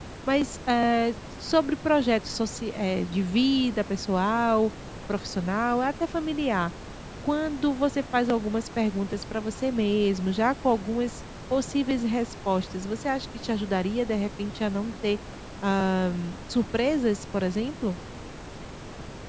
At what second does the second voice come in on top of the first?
none

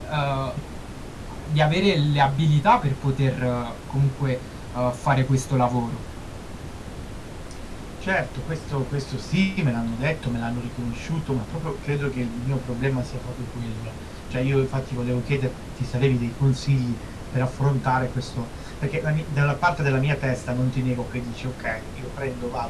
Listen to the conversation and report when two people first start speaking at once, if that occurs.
none

